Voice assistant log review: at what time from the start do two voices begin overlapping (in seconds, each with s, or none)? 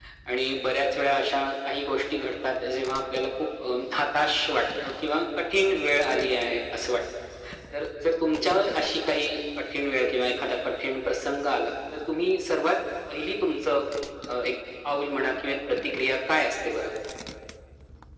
none